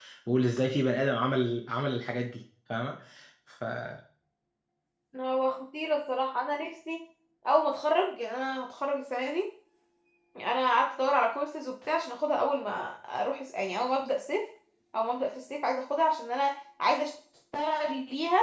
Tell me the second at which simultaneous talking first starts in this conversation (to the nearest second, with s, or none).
none